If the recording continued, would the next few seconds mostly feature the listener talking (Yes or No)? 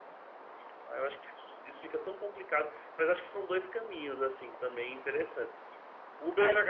No